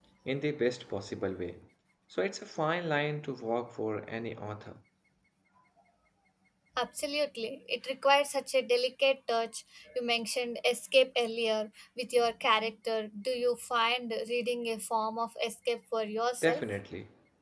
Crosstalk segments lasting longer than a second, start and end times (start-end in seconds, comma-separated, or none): none